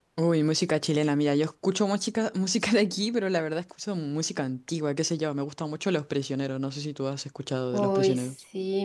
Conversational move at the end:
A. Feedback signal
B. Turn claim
B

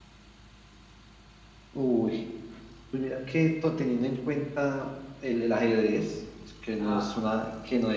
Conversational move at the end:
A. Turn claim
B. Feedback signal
B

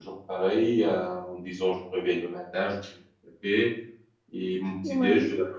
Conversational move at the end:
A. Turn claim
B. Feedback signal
B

